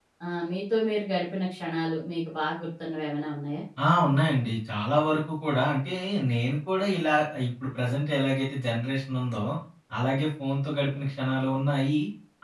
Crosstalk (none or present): none